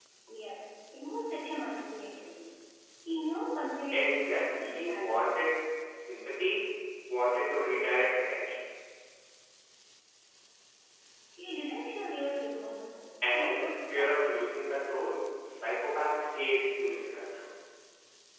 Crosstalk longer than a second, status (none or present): present